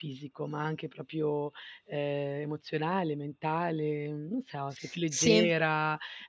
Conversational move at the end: listening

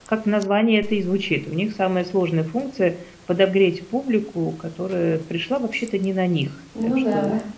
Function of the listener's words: listening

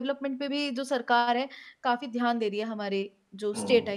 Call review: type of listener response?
taking over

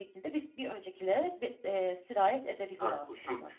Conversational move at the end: taking over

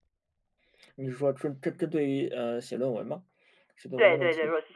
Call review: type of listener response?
taking over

